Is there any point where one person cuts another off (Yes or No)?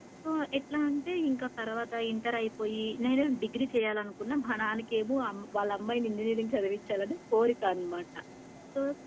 No